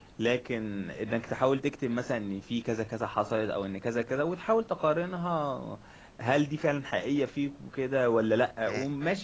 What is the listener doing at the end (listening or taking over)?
listening